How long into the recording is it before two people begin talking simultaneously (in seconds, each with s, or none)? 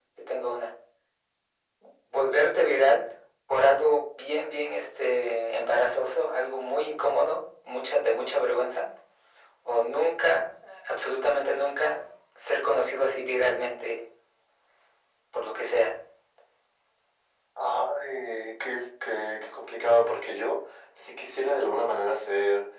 none